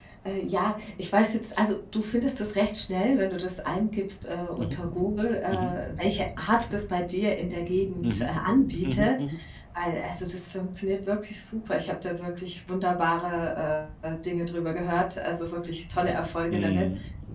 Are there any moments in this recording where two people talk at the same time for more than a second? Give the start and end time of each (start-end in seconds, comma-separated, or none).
none